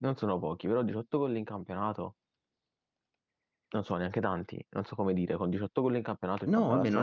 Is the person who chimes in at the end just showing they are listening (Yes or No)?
No